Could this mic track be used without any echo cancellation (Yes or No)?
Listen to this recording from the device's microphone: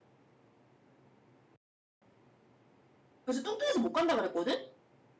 Yes